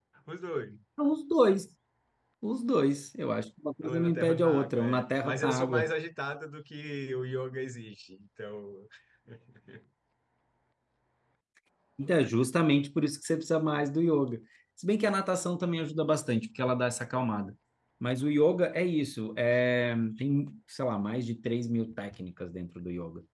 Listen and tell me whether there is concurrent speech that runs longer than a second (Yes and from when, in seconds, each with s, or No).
Yes, from 3.8 s